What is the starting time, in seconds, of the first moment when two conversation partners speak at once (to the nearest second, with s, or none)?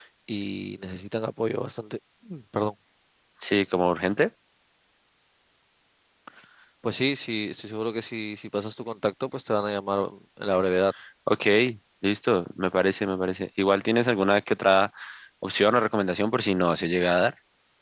none